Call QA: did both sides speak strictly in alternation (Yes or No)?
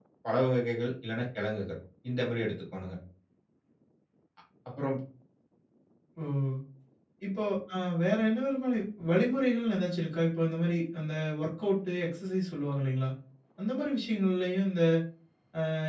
Yes